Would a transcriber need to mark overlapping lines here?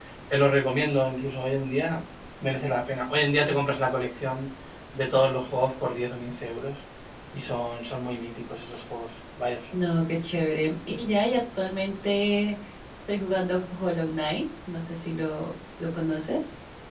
No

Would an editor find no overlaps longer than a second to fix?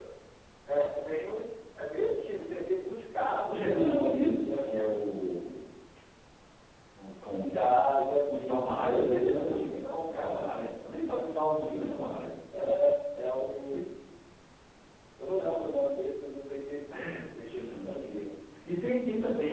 No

